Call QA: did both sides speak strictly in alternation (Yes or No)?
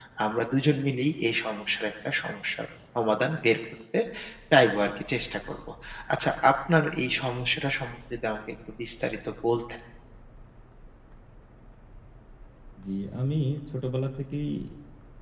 Yes